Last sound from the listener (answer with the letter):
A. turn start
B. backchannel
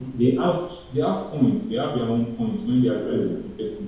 B